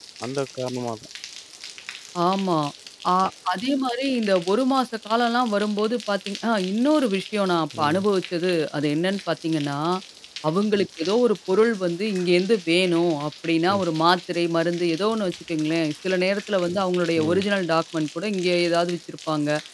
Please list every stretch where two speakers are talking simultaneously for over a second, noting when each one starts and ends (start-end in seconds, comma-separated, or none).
none